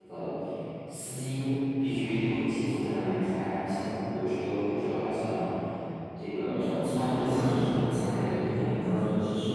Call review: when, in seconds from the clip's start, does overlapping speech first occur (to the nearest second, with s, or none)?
6 s